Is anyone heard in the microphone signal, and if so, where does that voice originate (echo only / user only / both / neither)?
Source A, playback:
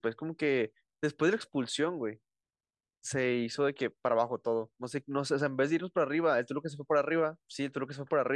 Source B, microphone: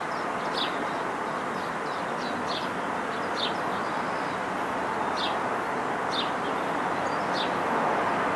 neither